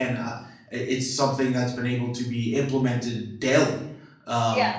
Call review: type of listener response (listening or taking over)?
listening